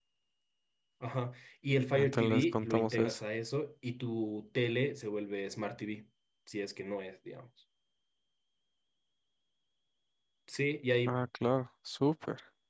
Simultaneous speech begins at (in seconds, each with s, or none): 1.9 s